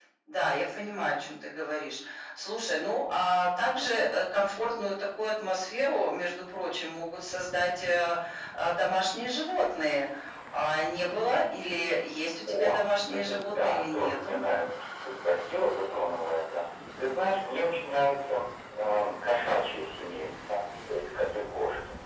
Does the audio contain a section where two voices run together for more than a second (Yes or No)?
Yes